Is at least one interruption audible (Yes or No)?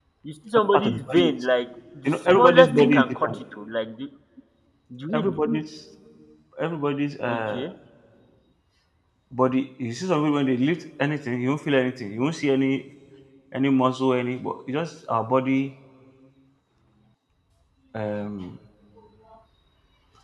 Yes